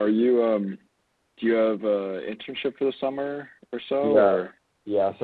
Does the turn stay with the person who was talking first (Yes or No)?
No